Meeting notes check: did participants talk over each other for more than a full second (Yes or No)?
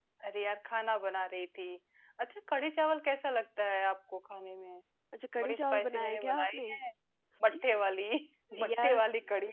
Yes